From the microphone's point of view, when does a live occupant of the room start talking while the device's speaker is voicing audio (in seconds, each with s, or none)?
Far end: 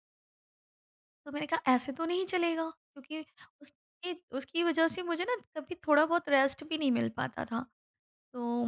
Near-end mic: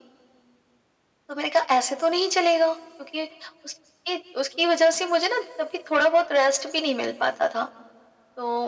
none